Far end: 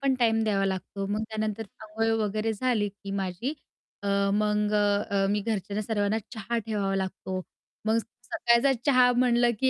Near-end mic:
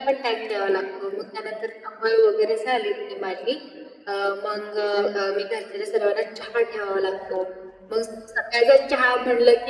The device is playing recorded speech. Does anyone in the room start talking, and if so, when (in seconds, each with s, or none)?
none